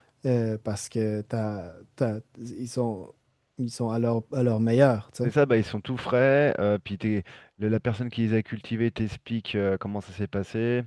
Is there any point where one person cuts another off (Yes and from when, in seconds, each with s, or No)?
No